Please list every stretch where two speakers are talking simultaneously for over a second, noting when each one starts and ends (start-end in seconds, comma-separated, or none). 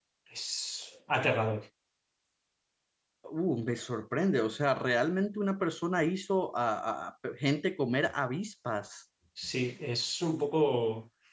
none